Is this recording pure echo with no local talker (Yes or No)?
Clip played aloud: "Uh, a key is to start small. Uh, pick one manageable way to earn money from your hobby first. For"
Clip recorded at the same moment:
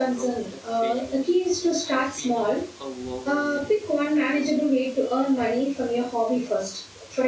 No